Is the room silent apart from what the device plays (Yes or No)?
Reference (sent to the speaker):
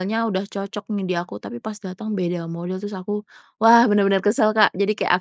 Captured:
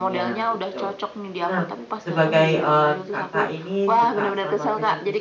No